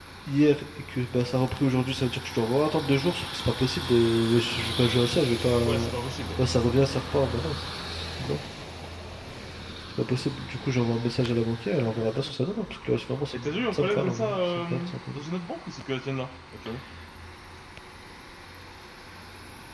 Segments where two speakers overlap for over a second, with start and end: 13.3-15.2

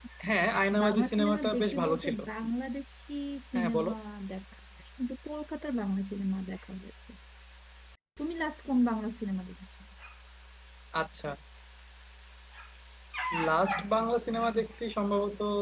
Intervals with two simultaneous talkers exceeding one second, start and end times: 0.8-2.2

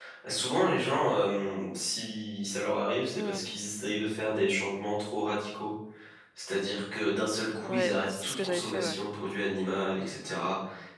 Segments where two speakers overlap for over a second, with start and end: 7.6-9.0

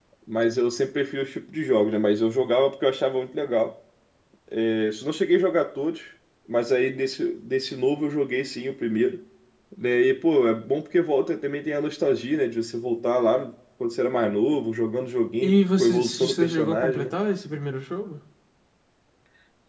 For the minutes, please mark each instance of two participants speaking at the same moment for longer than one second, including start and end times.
15.4-17.1

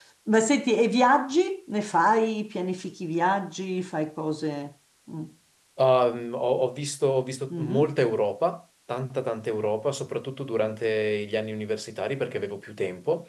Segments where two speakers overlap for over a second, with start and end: none

